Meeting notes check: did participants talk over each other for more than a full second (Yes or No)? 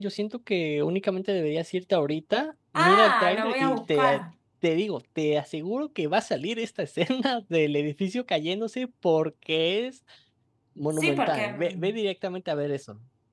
Yes